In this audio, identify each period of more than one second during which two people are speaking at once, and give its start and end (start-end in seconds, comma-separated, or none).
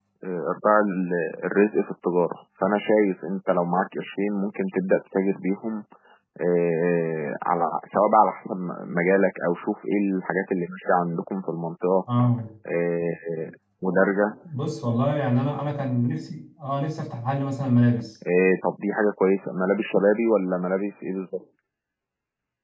none